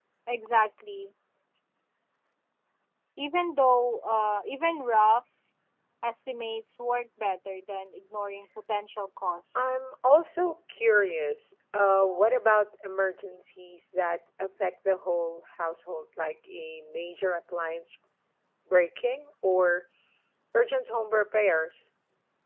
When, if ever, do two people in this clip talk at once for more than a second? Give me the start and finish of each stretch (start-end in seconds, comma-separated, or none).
none